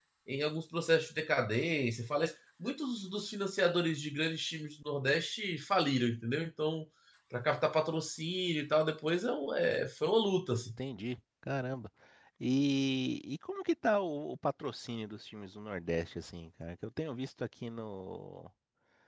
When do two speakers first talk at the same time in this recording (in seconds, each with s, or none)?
none